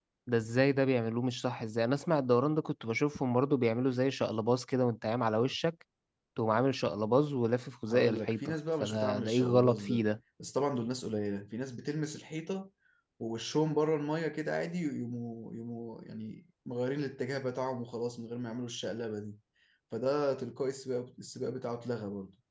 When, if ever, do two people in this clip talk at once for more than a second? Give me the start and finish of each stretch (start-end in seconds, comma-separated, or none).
7.9-10.0